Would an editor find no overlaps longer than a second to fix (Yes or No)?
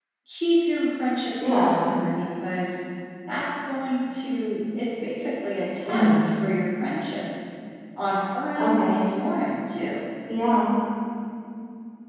Yes